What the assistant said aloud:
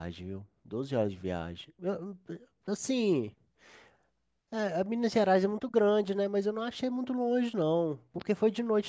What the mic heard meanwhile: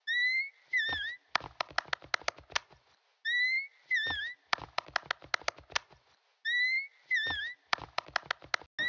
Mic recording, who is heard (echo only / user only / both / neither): neither